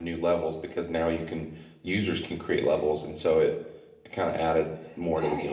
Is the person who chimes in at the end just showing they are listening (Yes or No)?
No